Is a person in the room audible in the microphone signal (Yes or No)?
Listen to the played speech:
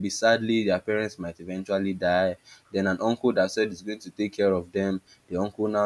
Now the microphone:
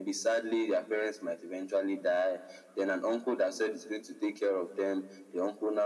No